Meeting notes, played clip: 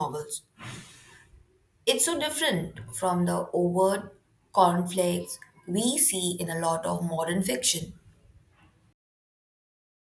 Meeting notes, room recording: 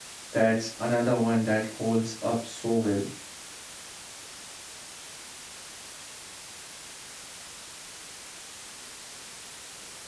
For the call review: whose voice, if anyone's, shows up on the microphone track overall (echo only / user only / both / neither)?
user only